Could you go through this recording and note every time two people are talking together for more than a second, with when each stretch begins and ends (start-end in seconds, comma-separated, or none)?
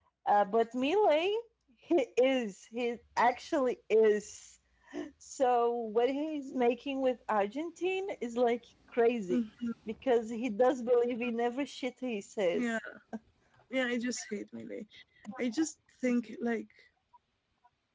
none